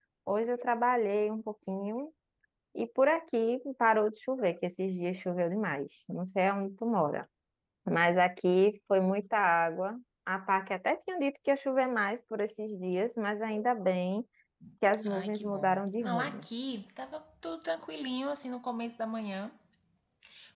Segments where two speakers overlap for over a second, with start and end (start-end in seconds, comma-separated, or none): 15.1-16.4